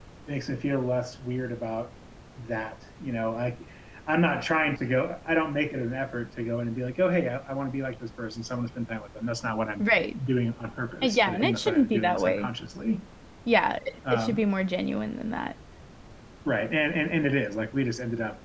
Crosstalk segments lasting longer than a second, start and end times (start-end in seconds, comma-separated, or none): 11.0-12.5